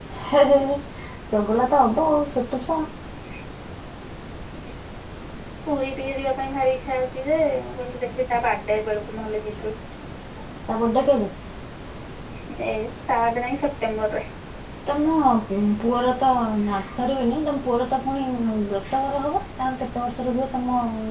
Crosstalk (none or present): none